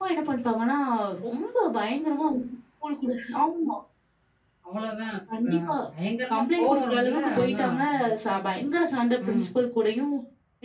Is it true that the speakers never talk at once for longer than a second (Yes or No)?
No